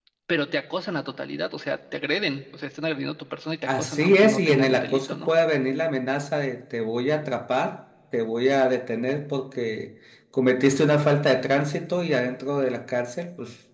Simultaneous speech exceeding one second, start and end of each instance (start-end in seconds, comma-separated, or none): 3.7-5.3